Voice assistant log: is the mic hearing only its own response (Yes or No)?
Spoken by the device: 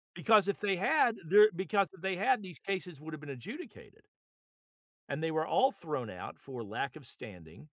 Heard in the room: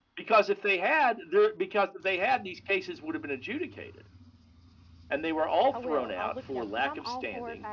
No